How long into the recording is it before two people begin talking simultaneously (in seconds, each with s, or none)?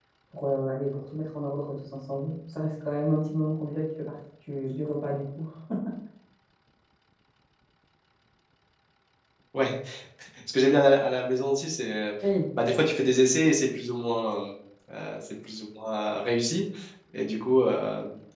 none